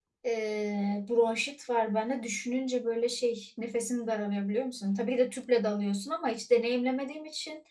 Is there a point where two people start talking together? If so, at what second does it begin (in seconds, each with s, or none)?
none